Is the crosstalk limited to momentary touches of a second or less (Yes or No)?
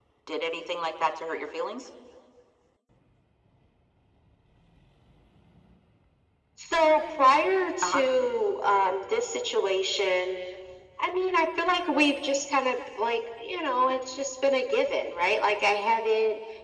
Yes